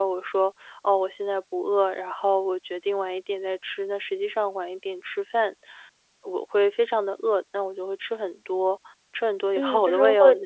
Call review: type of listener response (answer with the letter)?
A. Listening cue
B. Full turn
B